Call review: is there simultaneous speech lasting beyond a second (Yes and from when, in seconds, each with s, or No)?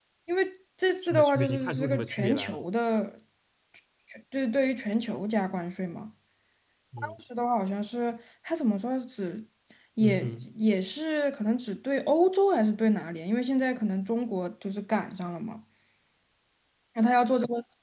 Yes, from 1.0 s